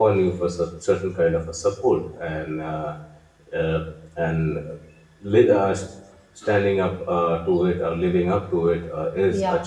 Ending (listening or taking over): taking over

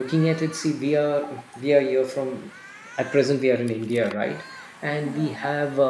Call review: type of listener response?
listening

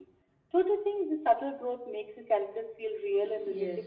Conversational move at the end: taking over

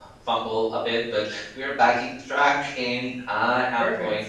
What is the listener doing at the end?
listening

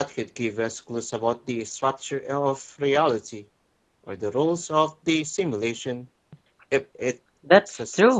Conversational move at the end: taking over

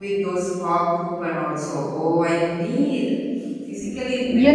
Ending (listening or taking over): taking over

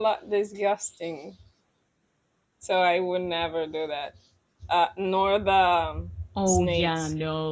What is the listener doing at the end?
taking over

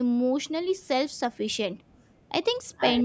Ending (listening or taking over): listening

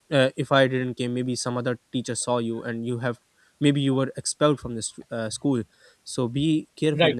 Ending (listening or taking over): listening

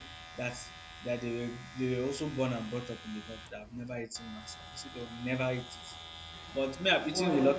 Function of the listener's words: listening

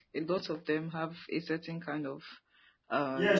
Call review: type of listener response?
taking over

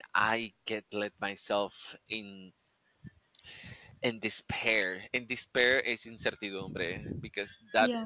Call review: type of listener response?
listening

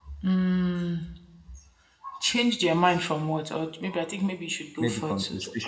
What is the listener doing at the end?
taking over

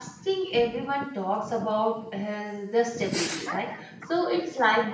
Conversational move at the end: listening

